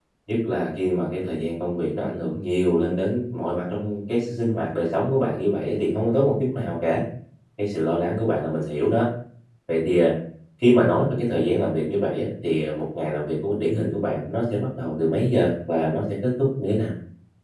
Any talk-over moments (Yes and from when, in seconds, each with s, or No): No